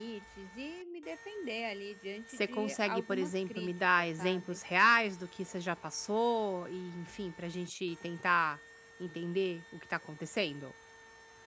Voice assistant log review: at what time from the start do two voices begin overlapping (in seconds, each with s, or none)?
2.3 s